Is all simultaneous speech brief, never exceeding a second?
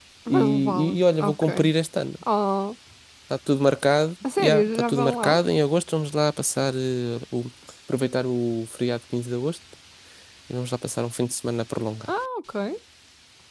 No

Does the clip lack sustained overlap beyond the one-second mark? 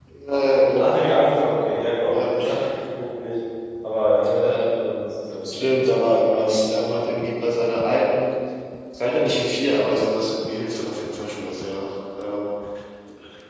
Yes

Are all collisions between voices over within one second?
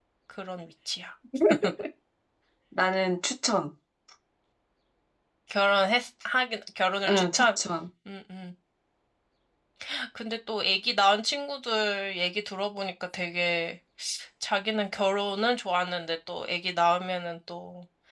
Yes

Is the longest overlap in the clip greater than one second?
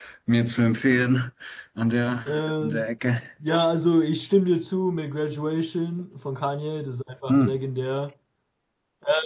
No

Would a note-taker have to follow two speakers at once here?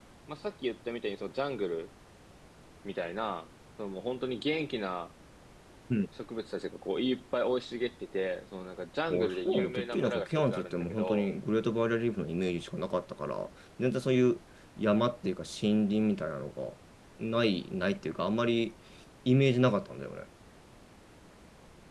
Yes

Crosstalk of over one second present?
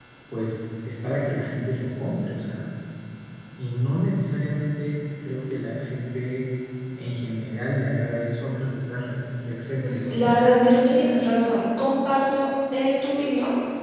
No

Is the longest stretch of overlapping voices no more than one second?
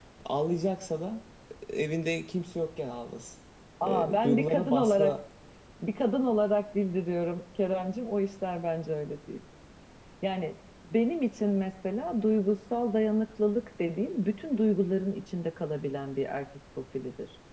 No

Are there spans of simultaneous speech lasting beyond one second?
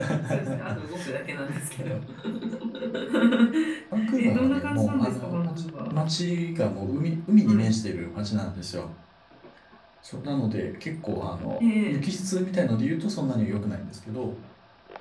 Yes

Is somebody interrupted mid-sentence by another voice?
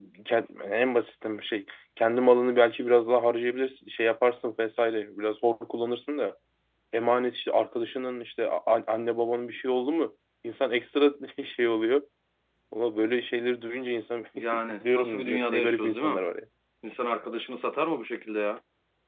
Yes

